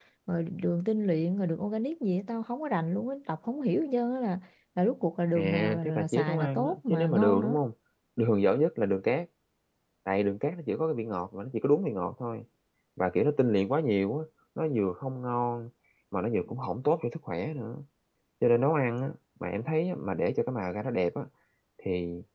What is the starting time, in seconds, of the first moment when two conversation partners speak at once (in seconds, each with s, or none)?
5.4 s